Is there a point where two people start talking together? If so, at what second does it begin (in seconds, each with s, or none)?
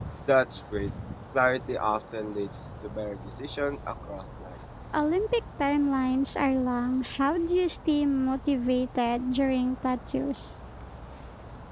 none